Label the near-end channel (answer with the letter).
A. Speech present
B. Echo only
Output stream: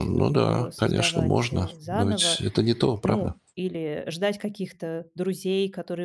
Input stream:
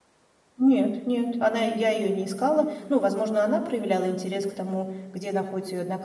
A